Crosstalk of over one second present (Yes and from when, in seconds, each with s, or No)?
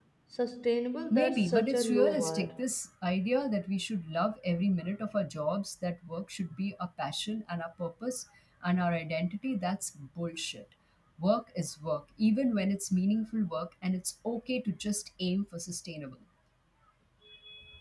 Yes, from 1.1 s